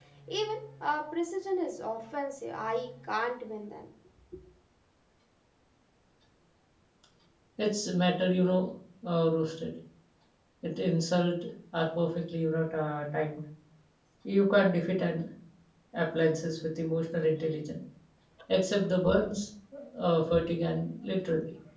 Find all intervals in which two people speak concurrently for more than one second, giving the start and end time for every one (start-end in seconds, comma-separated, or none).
none